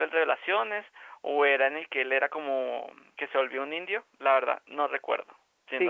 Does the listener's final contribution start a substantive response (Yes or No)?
Yes